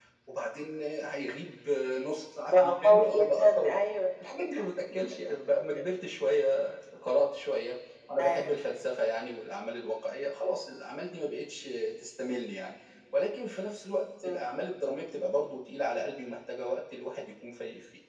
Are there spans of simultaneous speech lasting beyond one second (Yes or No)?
Yes